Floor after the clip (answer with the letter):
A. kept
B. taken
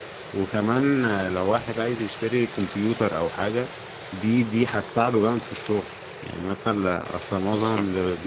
A